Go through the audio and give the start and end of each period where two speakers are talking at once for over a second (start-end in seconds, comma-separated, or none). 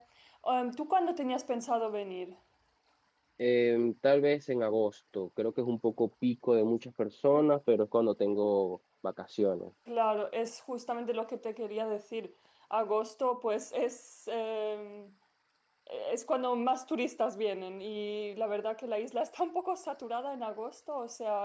none